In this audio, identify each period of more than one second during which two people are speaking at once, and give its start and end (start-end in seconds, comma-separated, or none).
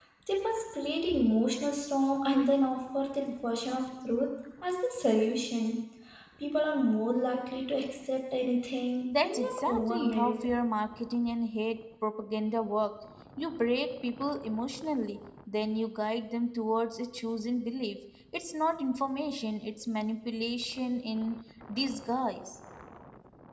9.2-10.5